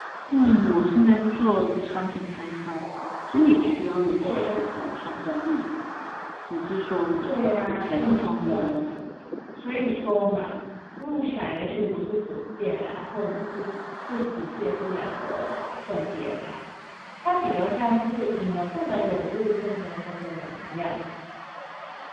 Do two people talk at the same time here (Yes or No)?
Yes